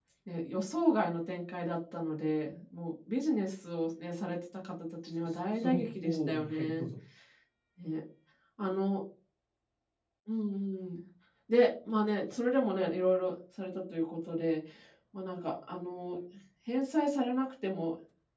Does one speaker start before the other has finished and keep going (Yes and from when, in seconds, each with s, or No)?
Yes, from 5.2 s